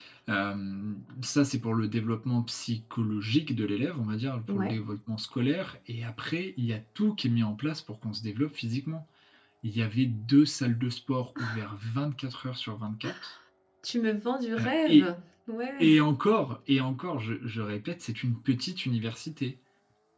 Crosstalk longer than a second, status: none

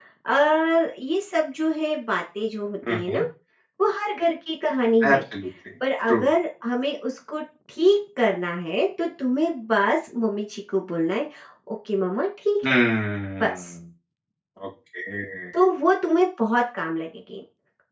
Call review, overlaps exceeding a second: none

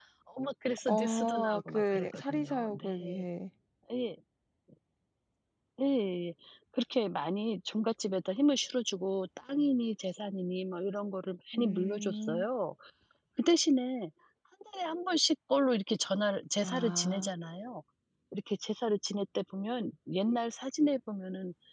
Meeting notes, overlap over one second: present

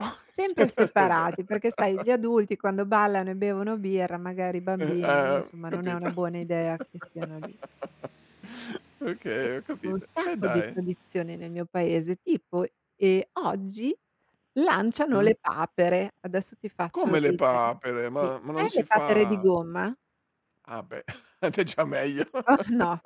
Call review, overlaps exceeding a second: present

